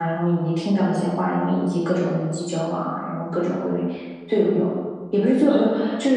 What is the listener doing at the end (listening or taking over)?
listening